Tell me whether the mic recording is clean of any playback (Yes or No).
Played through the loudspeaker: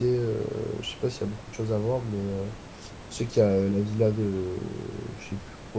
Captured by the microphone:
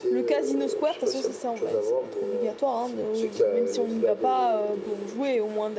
No